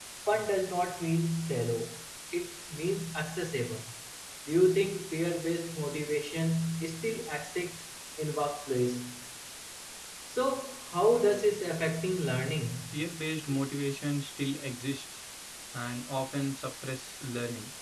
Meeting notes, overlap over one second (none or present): none